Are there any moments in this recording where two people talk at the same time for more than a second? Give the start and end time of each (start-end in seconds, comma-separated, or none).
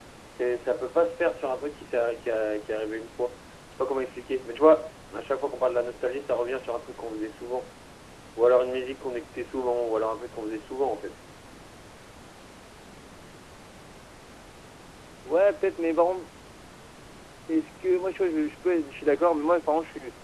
none